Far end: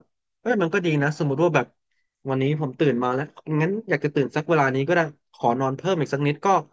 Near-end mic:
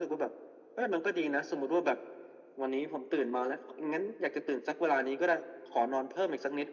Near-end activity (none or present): none